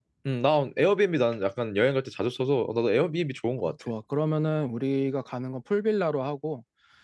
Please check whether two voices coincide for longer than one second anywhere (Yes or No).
No